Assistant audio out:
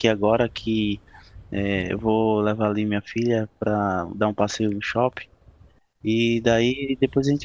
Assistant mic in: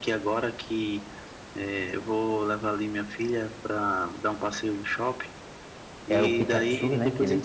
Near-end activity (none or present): present